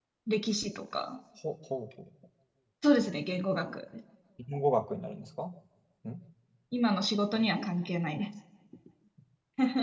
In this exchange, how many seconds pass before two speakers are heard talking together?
none

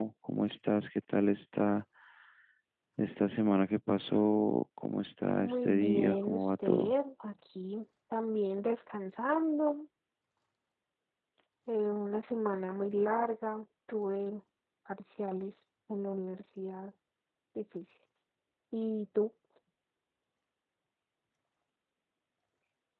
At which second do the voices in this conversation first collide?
5.4 s

